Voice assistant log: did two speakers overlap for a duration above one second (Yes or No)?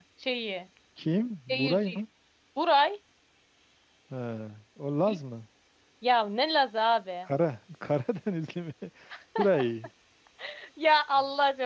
No